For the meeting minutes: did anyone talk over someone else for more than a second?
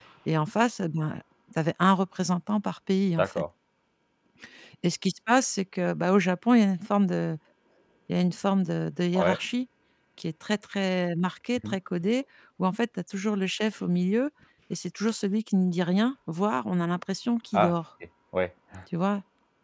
No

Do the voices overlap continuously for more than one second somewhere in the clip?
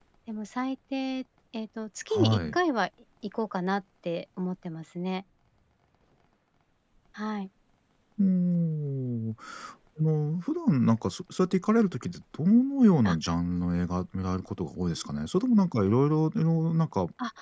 No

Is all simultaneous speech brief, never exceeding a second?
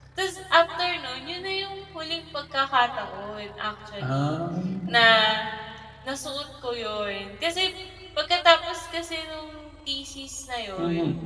Yes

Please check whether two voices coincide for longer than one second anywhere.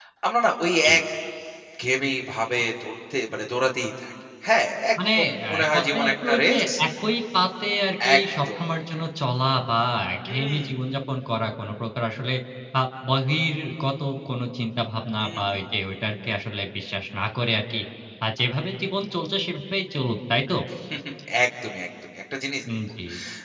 Yes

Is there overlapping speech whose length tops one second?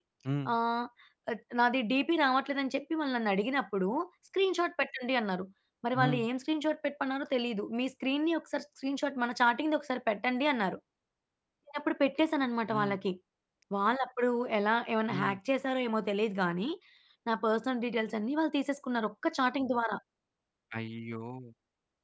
No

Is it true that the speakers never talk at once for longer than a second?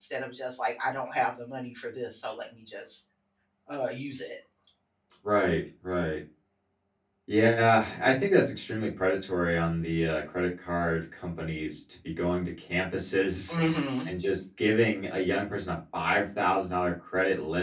Yes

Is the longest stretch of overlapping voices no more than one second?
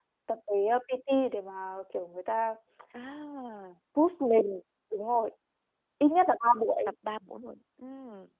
Yes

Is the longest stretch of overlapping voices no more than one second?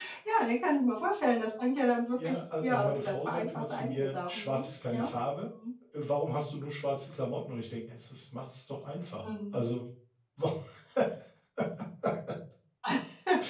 No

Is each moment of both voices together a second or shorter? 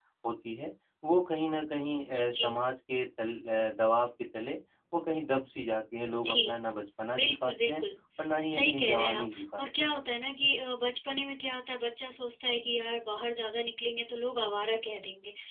No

